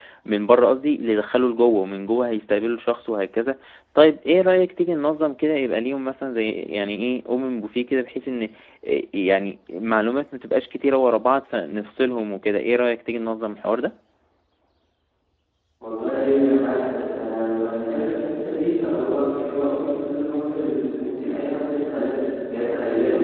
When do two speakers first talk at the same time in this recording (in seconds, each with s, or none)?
none